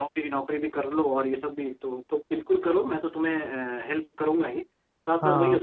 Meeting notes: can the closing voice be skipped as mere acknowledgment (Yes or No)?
Yes